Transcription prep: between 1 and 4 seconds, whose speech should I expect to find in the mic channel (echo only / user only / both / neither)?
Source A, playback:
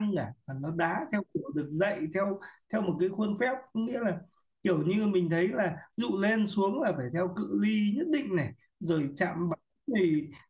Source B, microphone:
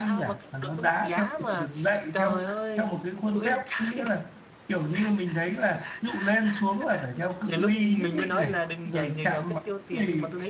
both